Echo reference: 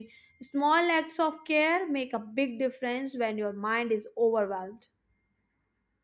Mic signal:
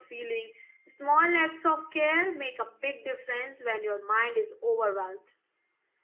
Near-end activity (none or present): none